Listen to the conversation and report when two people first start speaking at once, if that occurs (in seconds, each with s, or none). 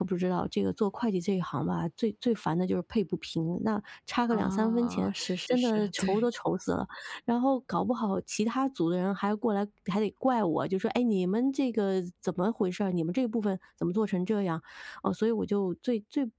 4.3 s